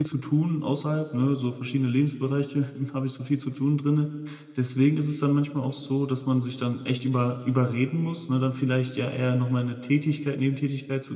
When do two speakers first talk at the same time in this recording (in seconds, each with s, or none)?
none